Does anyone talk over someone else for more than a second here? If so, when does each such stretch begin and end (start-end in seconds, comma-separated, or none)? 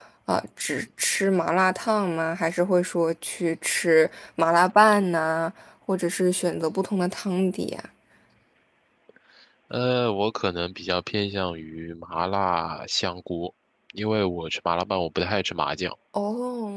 none